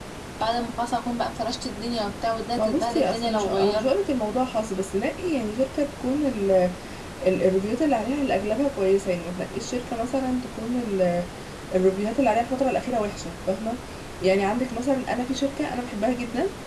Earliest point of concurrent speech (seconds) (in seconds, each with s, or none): 2.6 s